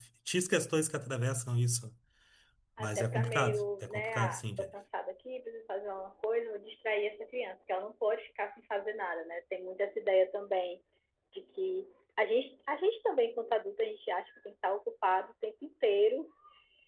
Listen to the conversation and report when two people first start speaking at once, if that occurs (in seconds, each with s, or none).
2.8 s